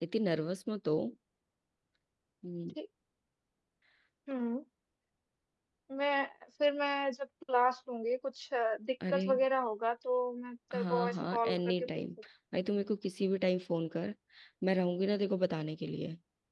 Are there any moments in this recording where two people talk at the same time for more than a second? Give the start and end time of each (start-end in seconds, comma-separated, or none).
10.7-12.0